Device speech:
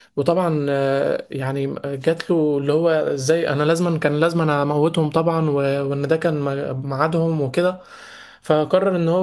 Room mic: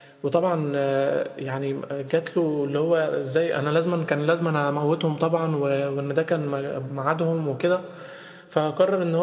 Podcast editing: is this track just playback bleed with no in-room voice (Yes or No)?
Yes